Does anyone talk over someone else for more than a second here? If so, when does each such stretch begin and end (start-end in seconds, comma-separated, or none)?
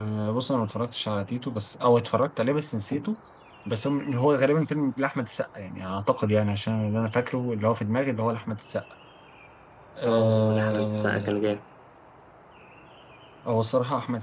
10.0-11.3